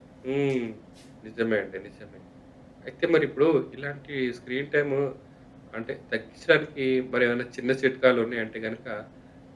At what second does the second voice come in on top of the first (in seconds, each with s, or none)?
none